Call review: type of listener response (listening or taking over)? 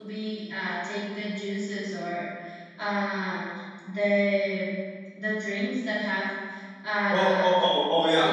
taking over